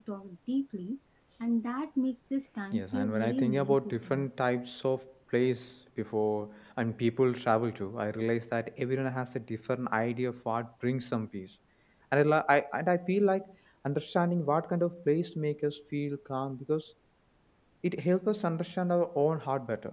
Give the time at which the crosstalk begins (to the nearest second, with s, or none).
3 s